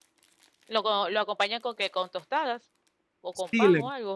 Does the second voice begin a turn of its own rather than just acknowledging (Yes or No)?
Yes